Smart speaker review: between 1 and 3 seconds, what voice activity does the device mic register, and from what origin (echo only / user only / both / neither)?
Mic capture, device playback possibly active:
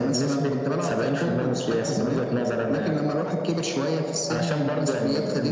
echo only